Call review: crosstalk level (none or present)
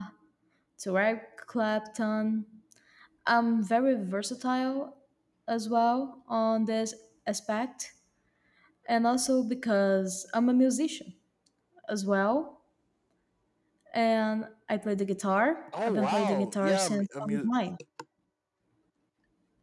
present